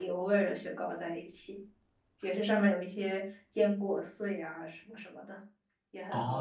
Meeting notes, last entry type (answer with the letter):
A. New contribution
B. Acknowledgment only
A